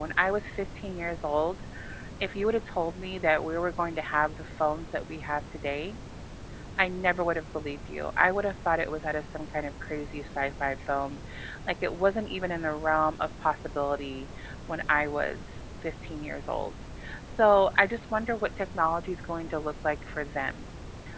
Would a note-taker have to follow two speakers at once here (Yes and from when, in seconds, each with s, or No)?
No